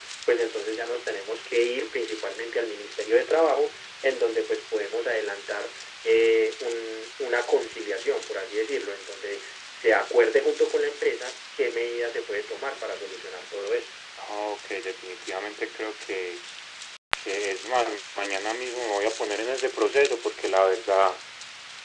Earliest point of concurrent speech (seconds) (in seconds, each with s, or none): none